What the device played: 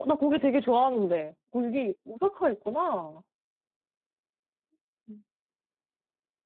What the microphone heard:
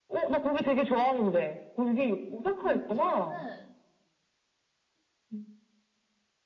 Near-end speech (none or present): present